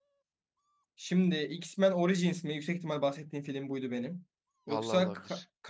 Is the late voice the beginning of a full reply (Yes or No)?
No